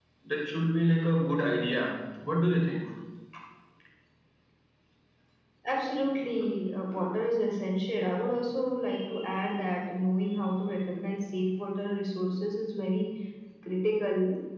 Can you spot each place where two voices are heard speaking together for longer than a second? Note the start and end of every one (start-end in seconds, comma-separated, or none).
none